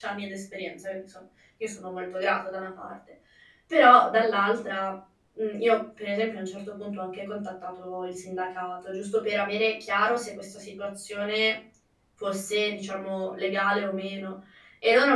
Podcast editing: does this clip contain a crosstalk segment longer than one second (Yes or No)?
No